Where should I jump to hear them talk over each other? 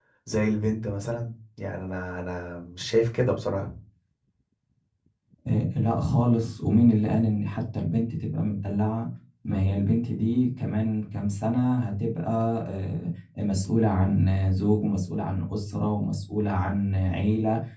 none

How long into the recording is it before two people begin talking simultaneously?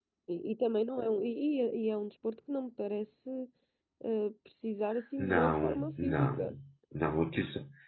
5.2 s

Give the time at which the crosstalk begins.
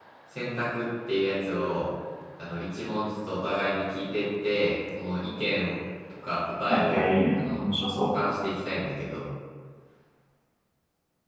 6.7 s

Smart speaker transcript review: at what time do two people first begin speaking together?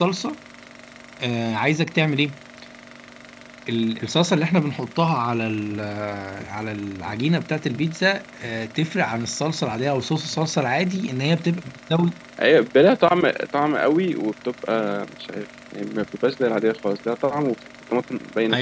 none

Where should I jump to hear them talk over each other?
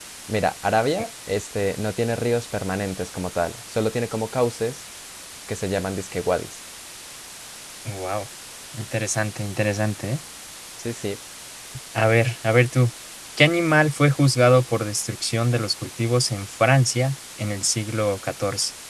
none

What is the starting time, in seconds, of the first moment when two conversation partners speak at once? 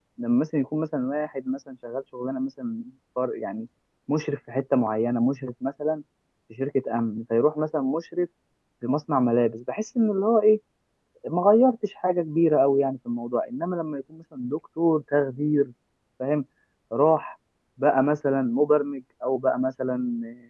none

